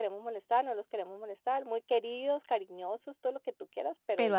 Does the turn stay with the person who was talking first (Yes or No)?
Yes